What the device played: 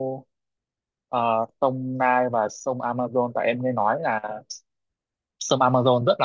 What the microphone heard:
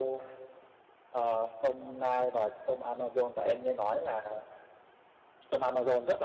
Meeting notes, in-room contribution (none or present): none